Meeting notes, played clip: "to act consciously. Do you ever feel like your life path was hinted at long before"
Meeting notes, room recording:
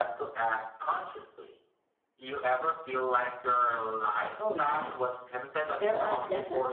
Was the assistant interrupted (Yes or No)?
Yes